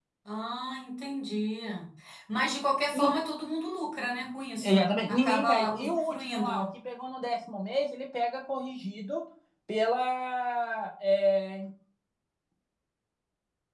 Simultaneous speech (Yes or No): Yes